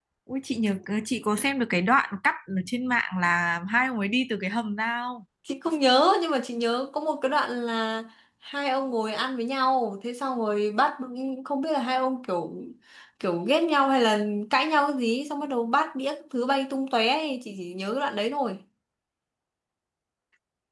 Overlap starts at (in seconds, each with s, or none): none